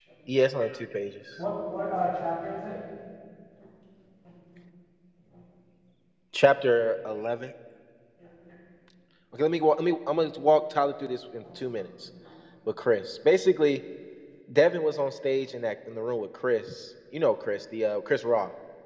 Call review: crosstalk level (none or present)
none